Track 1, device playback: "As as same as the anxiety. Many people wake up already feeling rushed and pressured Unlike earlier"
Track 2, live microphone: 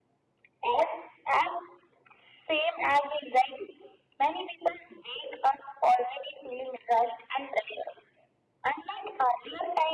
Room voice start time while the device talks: none

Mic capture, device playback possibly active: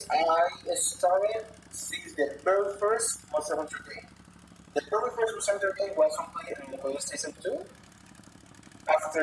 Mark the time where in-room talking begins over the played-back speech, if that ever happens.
none

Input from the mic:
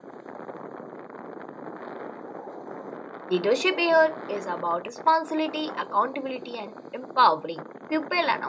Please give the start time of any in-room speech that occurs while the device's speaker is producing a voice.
3.3 s

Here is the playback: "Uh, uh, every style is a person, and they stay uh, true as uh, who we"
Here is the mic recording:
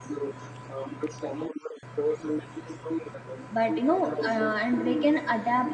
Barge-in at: 3.5 s

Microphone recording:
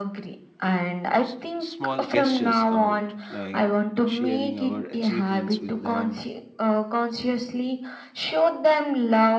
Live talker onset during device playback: 1.2 s

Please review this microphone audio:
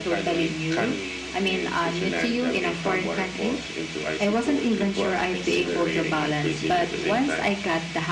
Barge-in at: none

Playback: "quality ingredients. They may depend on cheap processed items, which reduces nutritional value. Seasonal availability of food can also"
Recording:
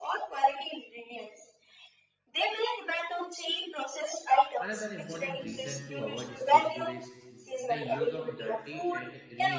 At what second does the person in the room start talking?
4.6 s

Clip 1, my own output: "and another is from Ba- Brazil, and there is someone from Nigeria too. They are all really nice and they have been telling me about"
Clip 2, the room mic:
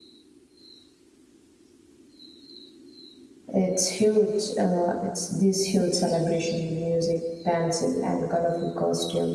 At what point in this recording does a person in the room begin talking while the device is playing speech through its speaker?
3.5 s

